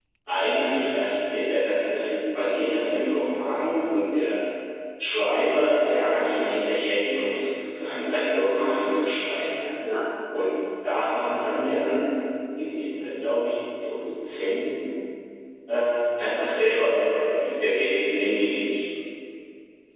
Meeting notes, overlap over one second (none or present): none